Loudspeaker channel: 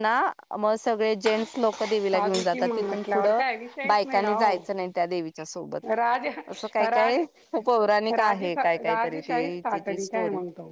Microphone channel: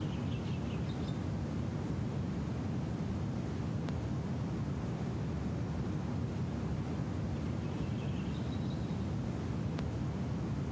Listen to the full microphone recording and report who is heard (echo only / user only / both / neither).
neither